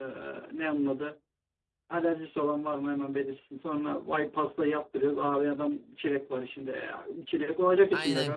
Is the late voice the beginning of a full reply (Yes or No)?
Yes